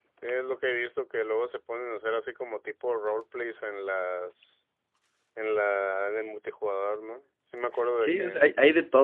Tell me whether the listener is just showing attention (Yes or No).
No